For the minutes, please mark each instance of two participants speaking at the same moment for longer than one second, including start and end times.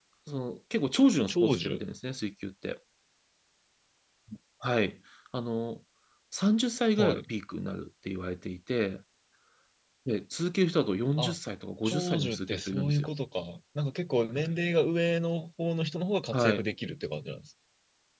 11.8-13.1

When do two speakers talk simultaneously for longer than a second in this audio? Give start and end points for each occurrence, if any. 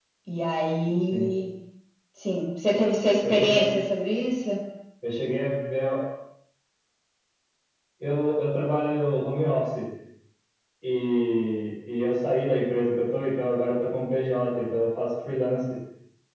none

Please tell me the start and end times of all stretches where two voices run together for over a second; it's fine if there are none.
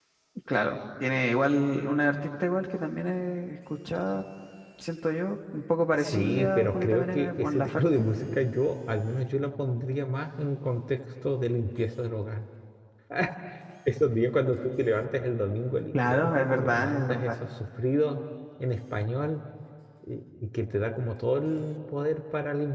5.9-8.1, 15.9-17.3

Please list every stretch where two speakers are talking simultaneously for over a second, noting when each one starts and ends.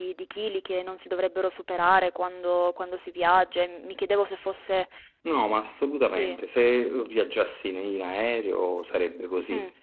none

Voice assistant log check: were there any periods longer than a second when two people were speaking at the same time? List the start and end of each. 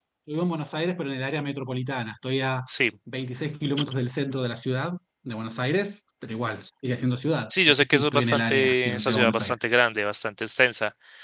7.5-9.6

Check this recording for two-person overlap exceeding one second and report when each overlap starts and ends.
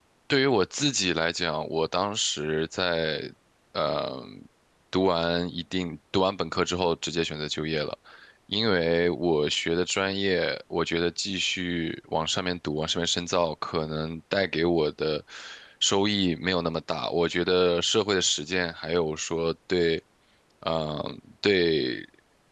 none

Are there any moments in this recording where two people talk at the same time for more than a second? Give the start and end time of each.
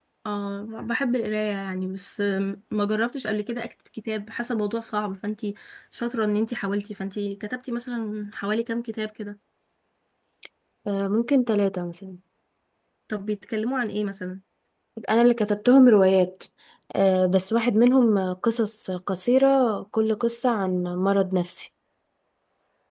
none

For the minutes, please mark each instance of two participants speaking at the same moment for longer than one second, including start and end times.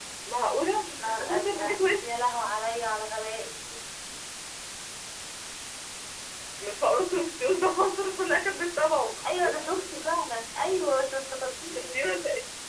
1.0-2.2

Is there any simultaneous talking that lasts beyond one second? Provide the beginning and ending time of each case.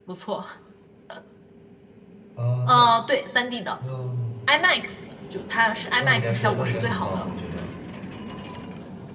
6.0-7.3

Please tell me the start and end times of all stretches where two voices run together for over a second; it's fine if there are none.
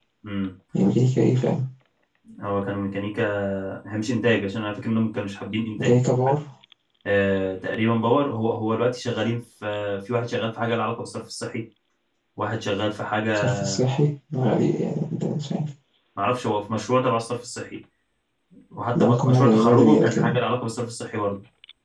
18.9-20.4

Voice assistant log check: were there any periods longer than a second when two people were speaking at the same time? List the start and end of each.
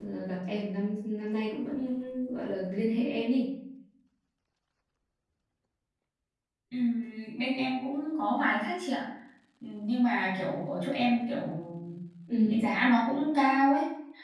none

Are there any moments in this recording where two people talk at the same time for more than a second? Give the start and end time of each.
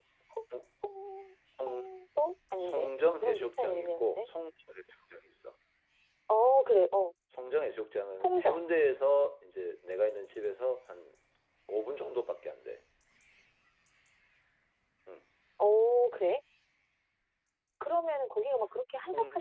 2.6-4.3

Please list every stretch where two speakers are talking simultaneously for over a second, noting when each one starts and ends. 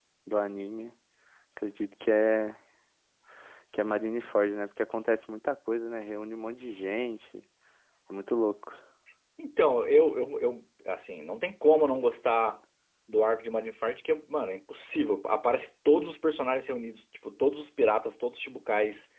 none

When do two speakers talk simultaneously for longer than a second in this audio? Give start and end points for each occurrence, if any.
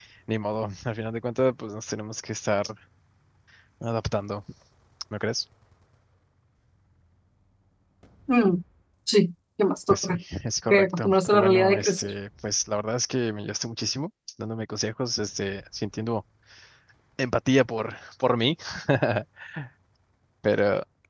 10.7-12.1

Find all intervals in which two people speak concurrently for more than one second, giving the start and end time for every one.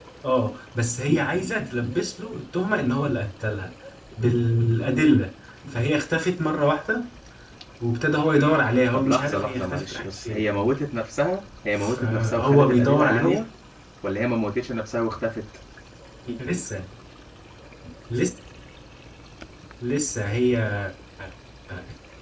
8.9-10.4, 11.8-13.4

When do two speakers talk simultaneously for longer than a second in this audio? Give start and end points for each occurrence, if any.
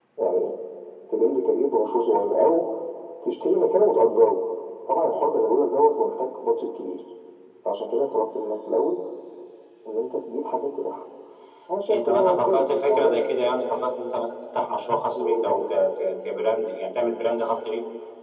11.9-13.2

